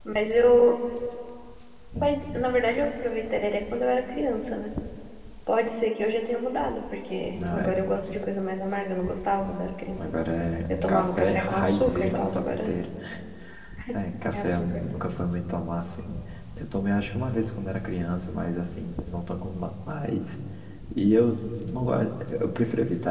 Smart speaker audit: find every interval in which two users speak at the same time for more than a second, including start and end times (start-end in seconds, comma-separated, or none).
10.9-12.4